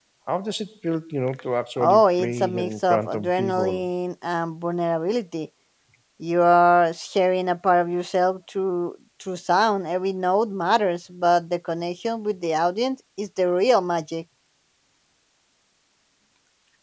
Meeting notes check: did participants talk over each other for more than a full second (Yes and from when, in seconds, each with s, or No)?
Yes, from 1.8 s